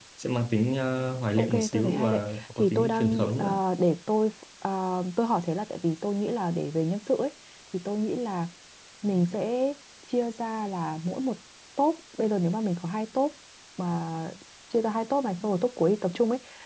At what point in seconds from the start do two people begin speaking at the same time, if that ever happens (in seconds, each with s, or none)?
1.4 s